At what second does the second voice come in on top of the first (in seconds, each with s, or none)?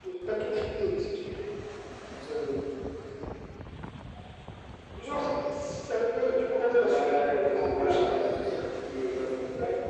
6.8 s